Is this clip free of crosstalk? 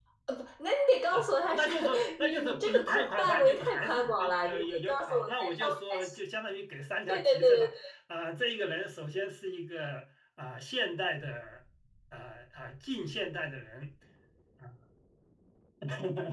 No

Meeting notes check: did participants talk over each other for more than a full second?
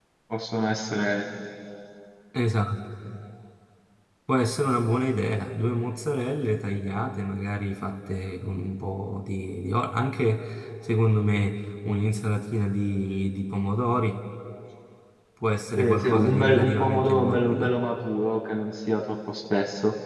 Yes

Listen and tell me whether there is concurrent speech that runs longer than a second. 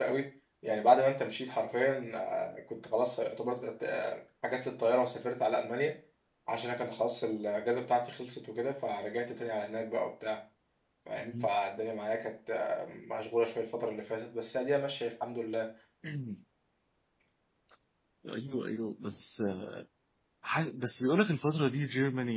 No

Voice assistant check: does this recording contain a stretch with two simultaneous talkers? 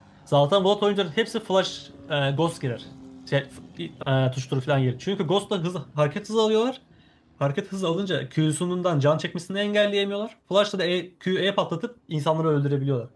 No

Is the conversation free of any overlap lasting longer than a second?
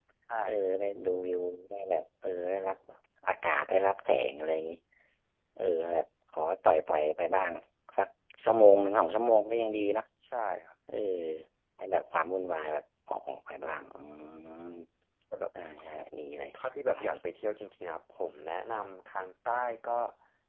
Yes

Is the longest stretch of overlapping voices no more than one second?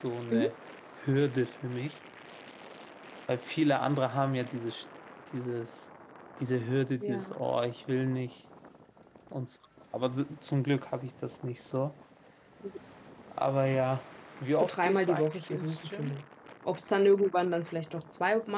No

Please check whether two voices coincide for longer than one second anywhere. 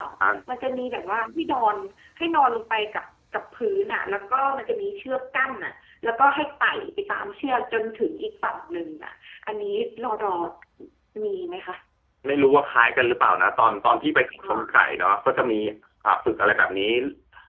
No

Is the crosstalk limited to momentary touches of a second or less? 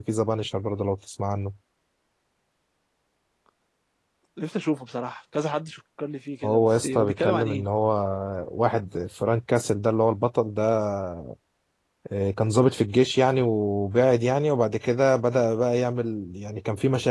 No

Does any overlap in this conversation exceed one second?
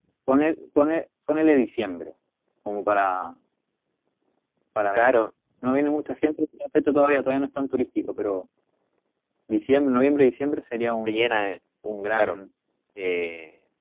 No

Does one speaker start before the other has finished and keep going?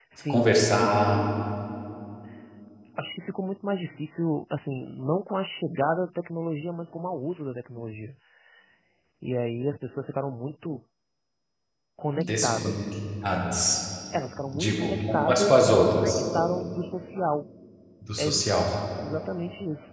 Yes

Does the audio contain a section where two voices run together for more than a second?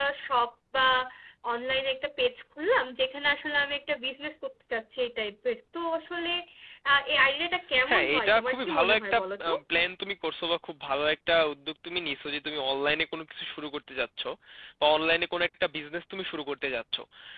Yes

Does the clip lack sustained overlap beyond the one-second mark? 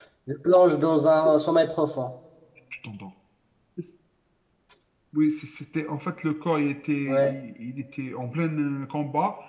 Yes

